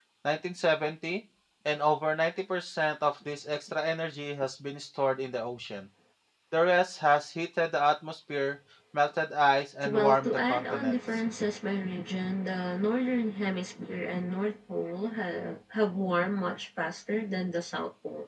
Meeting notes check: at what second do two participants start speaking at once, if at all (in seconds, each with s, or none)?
9.8 s